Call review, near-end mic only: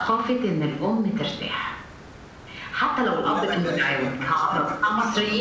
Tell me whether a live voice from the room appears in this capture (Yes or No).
Yes